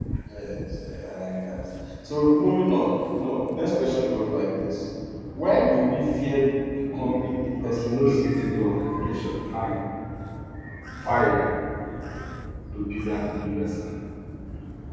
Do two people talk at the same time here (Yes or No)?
Yes